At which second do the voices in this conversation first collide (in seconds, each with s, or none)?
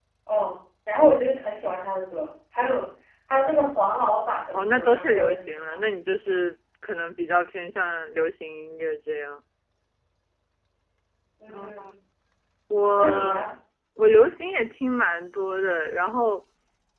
4.5 s